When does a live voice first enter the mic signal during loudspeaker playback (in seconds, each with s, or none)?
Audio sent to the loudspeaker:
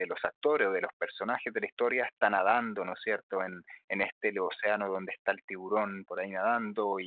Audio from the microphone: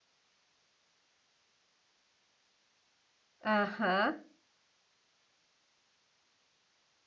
3.5 s